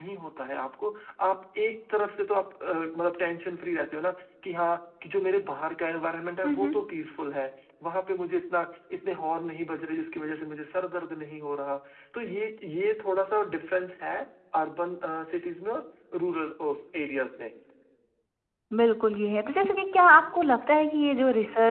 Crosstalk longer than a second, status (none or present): none